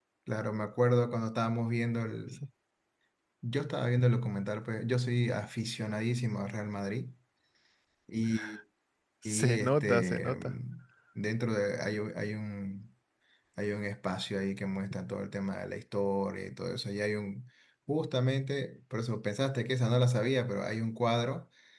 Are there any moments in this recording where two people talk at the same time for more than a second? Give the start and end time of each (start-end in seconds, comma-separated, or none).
9.2-10.5